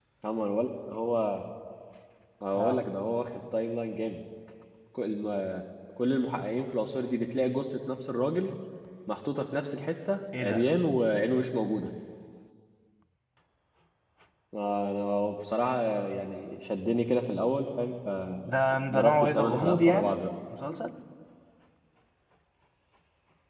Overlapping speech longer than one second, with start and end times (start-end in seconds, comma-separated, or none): 18.6-20.1